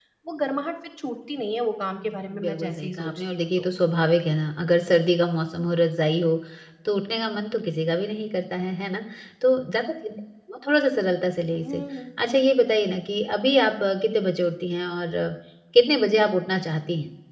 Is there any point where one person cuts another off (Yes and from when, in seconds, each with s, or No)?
Yes, from 2.0 s